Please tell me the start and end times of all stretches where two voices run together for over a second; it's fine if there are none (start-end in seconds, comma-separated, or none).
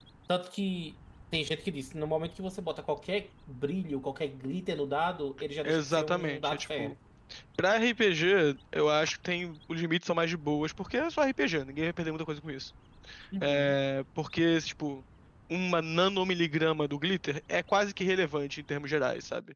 5.6-6.9